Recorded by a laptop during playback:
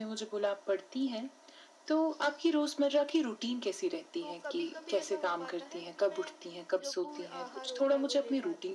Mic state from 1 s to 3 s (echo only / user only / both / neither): echo only